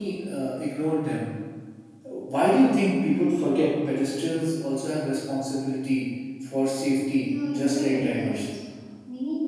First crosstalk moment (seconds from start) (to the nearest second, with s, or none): 7 s